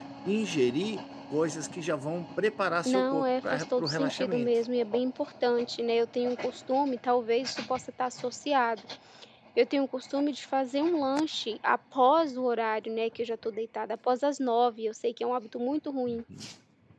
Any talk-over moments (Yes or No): Yes